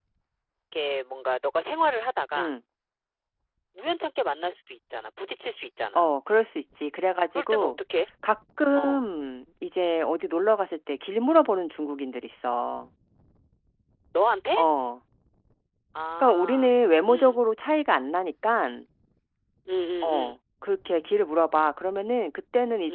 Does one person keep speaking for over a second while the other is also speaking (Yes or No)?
No